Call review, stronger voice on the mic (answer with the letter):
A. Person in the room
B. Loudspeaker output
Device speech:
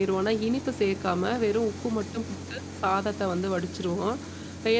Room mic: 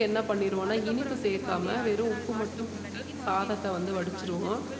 B